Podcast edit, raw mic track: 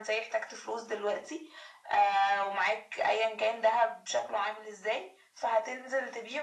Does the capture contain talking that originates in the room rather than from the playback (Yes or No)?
No